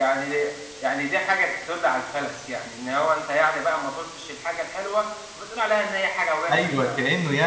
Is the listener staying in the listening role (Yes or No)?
No